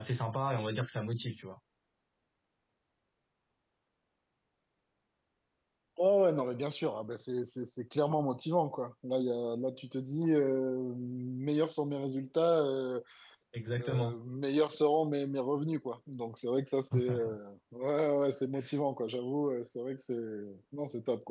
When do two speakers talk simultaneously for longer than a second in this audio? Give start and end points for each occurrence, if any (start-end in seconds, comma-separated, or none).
none